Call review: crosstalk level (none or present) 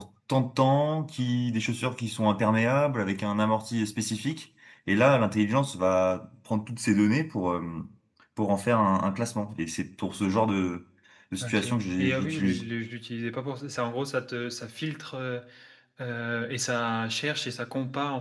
present